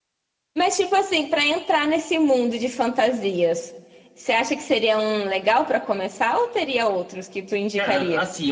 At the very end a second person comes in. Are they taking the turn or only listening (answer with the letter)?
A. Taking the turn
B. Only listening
A